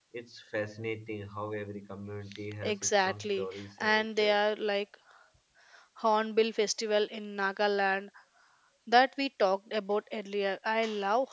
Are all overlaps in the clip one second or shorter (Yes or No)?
No